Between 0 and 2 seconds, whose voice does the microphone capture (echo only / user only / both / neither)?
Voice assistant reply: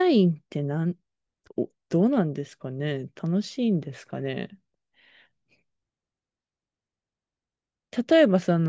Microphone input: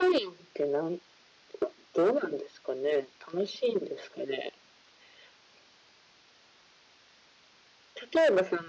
echo only